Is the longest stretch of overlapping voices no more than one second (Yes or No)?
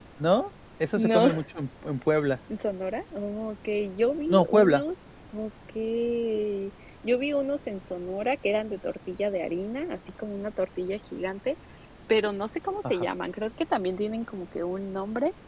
Yes